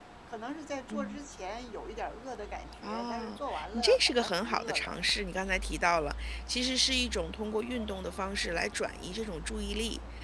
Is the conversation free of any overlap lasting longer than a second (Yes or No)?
No